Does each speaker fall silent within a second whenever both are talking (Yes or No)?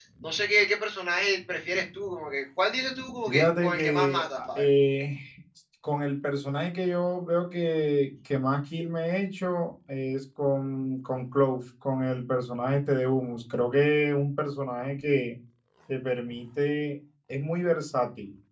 No